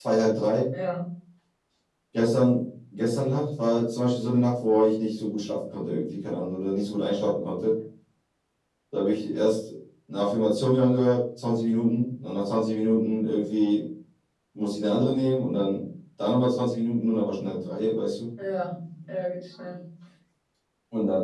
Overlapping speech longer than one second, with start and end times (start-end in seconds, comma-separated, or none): none